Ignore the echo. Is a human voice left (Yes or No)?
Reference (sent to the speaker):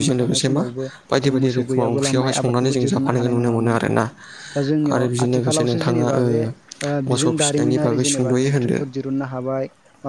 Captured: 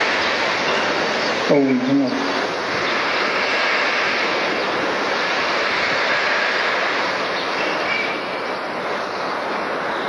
Yes